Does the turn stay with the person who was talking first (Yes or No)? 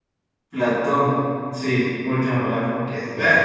No